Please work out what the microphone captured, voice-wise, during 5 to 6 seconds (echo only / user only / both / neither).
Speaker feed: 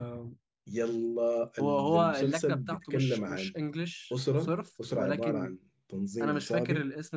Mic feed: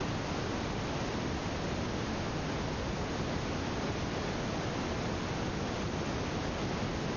neither